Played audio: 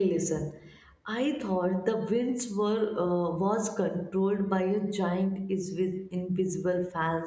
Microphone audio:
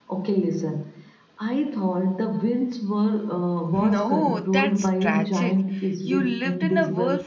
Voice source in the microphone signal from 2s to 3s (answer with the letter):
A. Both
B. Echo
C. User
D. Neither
B